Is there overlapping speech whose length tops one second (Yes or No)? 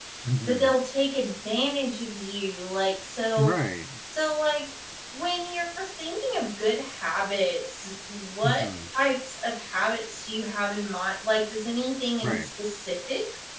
No